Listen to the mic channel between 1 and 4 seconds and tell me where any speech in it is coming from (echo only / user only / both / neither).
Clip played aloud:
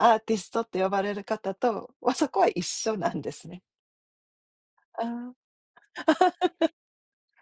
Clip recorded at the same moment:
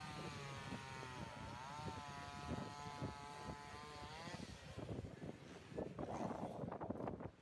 neither